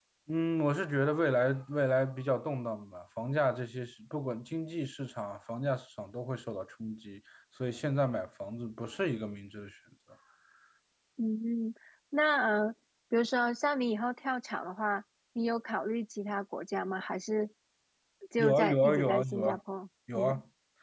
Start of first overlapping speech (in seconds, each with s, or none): 18.4 s